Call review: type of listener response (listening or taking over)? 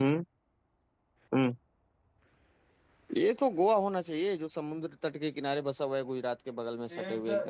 taking over